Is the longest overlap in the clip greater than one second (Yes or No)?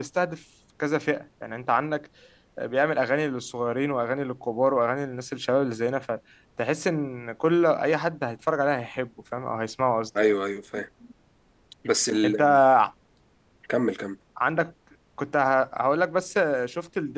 No